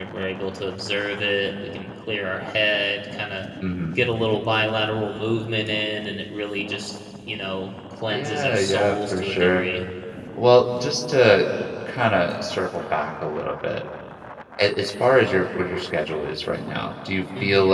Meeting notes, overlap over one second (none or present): present